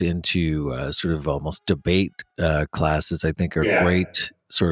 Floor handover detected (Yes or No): No